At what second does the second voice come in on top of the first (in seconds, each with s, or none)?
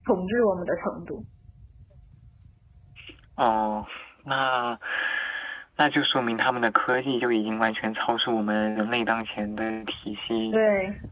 none